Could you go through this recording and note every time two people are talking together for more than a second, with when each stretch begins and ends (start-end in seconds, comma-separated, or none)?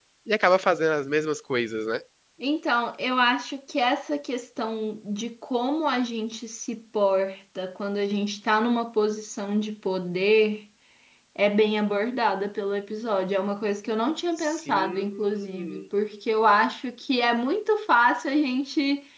14.4-15.8